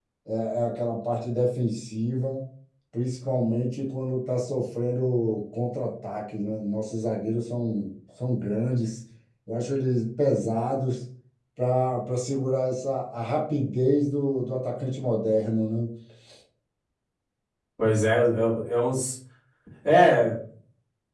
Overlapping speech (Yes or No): No